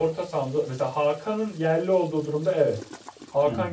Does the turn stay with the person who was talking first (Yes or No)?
Yes